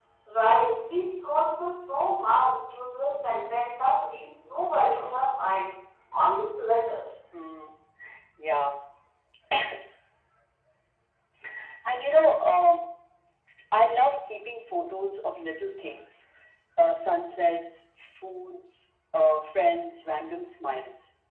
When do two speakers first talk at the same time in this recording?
none

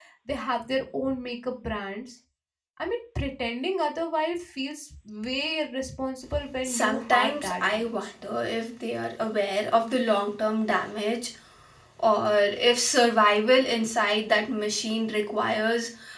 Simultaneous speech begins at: 7 s

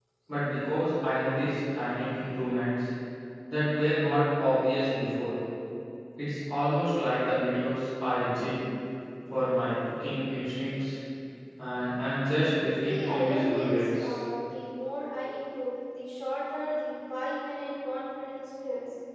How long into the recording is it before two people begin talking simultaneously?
13 s

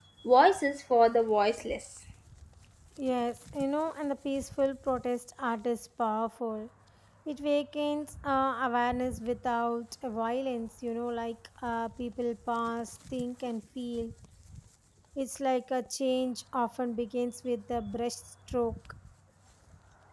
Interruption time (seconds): none

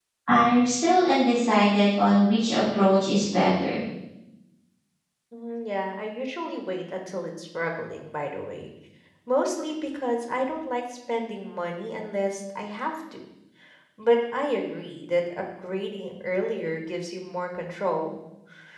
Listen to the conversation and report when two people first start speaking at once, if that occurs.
none

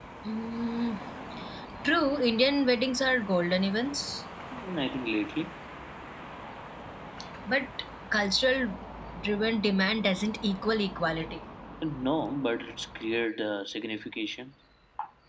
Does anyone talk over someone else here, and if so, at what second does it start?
none

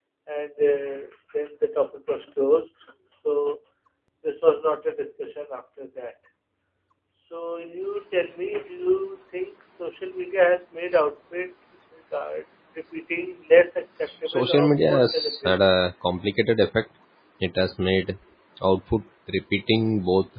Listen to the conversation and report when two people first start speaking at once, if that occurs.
14 s

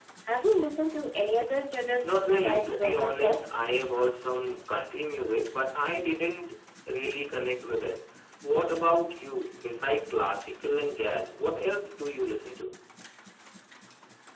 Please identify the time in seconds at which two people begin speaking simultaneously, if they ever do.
2 s

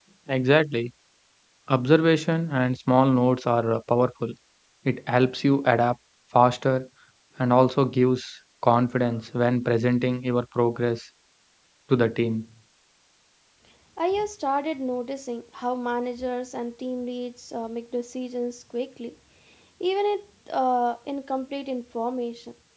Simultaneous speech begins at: none

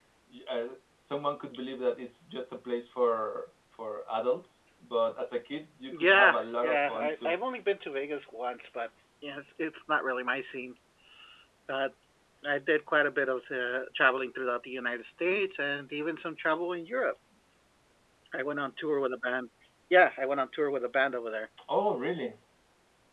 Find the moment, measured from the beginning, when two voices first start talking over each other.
6 s

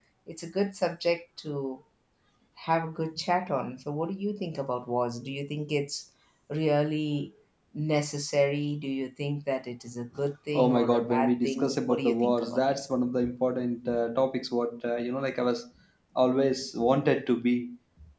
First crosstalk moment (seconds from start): 11 s

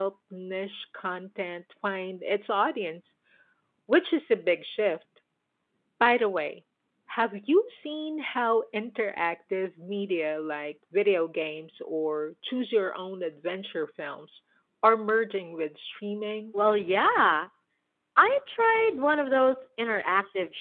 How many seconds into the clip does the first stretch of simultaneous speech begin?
none

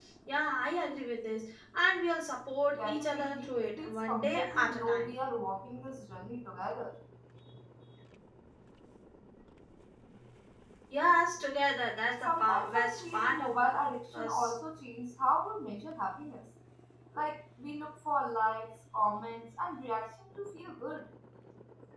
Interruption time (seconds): 3 s

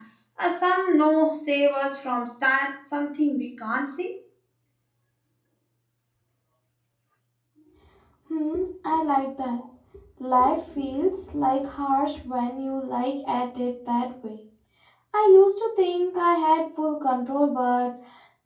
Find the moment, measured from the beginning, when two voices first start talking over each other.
none

